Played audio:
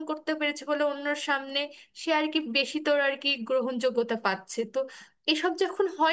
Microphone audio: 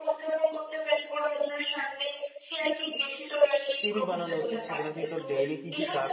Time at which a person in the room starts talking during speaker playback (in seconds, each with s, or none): 3.8 s